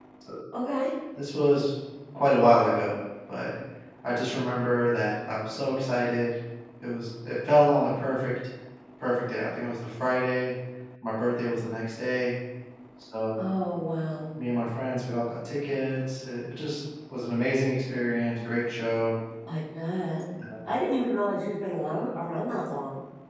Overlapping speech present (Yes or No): No